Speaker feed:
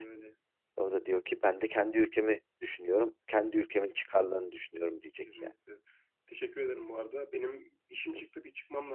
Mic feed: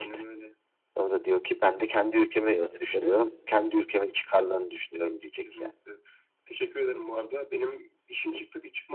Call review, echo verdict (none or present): present